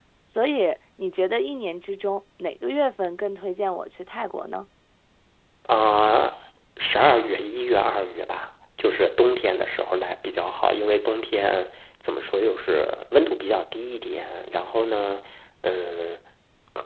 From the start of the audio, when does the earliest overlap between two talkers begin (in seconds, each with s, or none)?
none